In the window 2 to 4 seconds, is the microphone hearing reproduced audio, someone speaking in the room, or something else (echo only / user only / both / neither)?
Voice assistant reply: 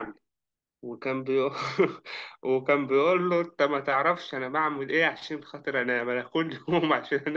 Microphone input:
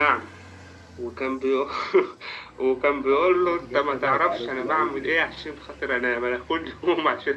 both